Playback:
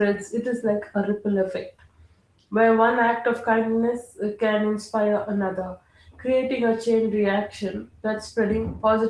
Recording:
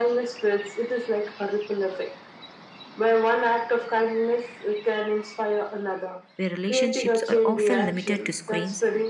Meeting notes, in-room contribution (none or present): present